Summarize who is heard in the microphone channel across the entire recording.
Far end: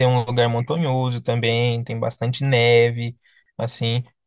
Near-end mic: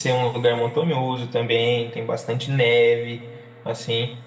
echo only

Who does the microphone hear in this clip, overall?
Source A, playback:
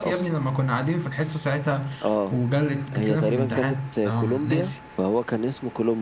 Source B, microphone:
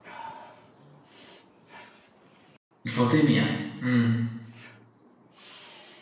user only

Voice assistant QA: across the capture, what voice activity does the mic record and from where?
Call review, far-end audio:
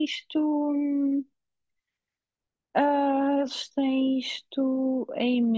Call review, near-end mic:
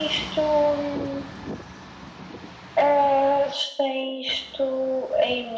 echo only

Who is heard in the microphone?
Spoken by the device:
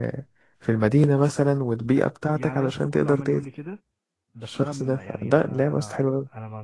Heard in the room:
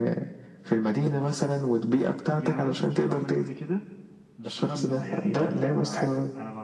echo only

